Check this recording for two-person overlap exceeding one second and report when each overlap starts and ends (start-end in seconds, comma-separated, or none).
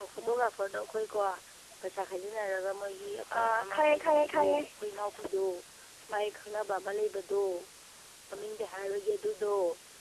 3.3-4.6